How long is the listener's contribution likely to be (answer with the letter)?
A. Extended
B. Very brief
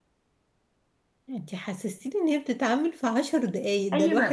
A